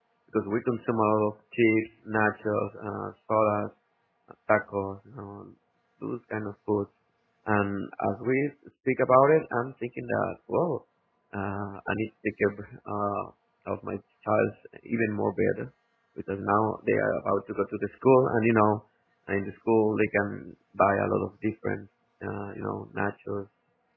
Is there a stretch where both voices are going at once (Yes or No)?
No